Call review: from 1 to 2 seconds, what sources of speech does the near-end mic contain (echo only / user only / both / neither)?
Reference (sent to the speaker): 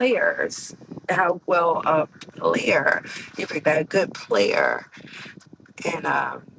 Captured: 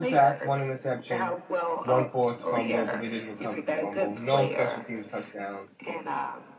both